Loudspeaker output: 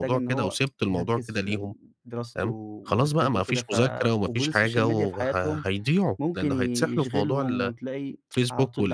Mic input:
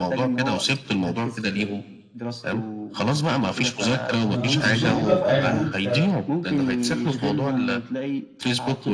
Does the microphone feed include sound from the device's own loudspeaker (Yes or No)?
Yes